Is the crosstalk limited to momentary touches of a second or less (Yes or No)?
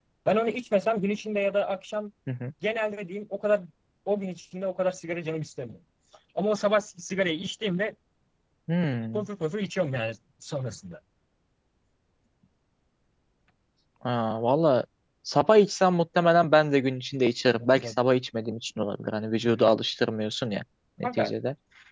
Yes